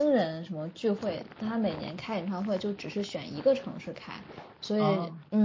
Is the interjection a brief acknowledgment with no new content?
Yes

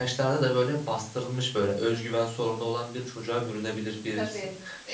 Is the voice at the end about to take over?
No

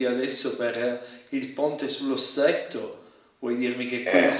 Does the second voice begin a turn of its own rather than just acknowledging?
No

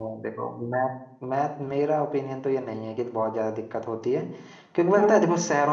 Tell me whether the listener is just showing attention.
Yes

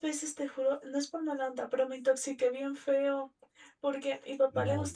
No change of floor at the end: Yes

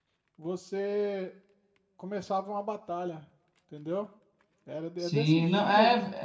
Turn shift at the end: Yes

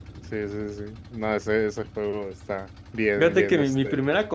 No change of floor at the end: No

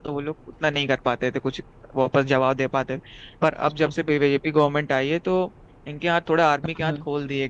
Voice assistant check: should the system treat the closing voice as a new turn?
No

